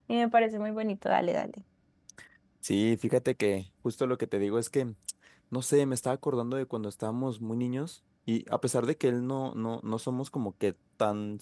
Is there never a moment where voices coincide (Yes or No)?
Yes